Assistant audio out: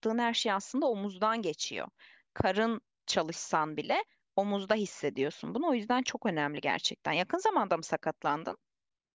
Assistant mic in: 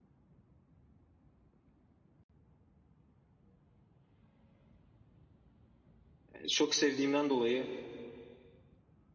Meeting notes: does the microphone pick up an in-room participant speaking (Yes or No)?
Yes